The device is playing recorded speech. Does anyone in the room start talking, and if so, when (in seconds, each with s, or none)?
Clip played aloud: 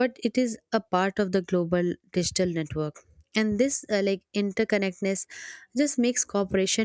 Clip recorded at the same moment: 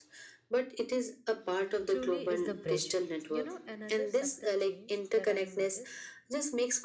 1.9 s